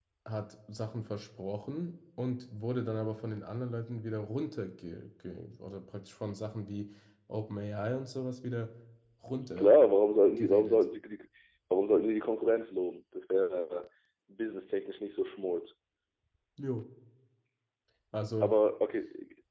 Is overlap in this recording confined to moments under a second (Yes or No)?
Yes